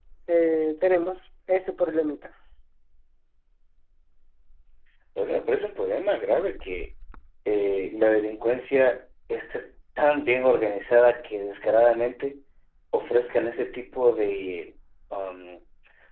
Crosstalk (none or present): none